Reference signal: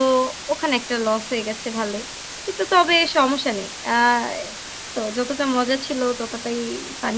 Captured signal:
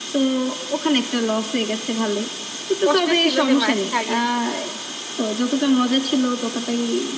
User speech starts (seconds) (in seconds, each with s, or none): 2.9 s